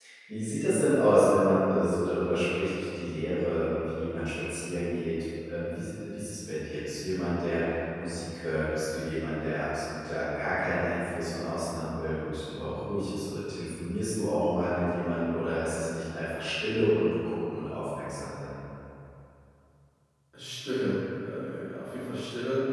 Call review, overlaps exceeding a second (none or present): none